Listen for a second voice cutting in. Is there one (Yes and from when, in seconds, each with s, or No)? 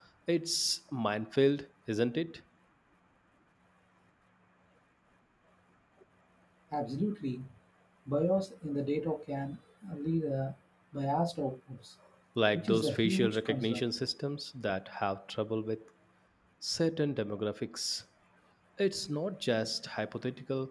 Yes, from 12.5 s